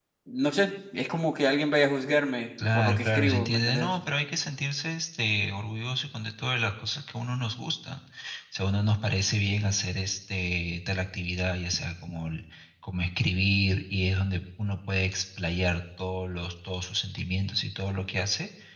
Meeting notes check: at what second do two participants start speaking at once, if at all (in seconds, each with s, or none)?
2.6 s